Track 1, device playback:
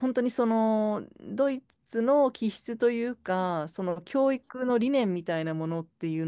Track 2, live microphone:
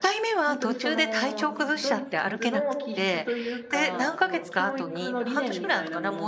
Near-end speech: present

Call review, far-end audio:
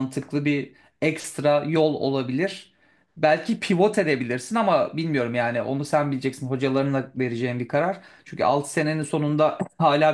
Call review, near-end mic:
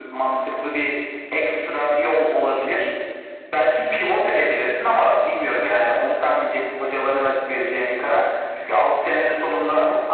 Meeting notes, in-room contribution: none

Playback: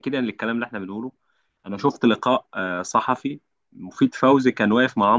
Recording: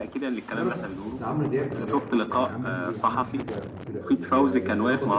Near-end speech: present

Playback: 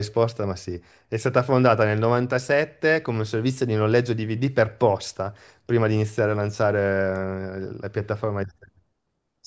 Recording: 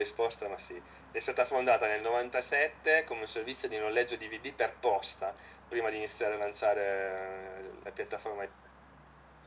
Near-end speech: none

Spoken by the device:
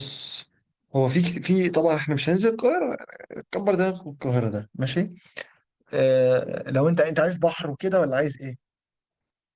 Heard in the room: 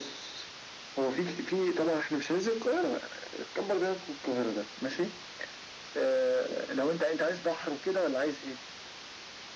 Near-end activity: none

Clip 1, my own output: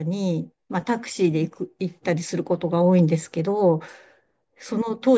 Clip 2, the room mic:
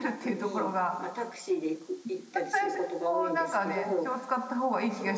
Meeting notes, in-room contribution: present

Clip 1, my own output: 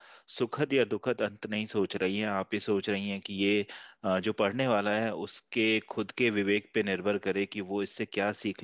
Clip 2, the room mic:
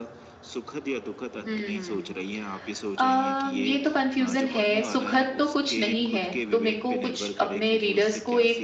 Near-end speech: present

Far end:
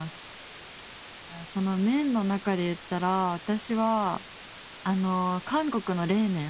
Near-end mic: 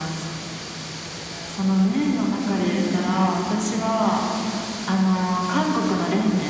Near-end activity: none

